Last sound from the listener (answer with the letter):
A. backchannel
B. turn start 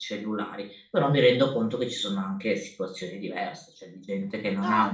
A